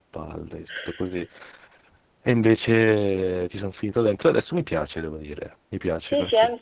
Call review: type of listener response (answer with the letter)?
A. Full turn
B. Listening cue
A